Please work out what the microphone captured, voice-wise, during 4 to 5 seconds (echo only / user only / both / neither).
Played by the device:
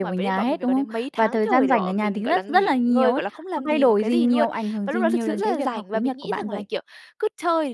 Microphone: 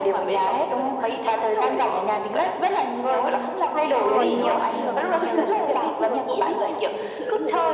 both